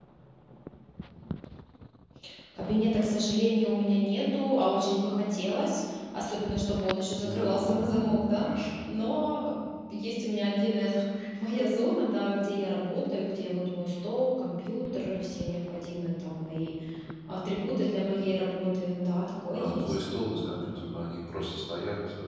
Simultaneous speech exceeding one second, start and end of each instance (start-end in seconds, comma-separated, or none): 7.2-8.5